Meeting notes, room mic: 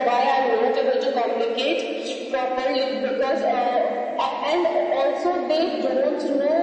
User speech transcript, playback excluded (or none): none